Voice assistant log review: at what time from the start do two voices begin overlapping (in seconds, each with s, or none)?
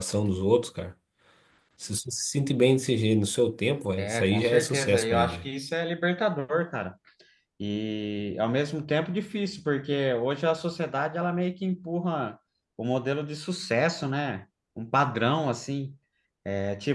4.0 s